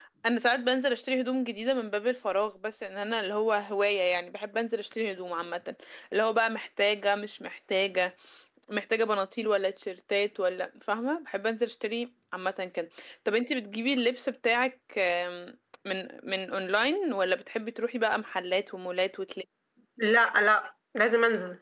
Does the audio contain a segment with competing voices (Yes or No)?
No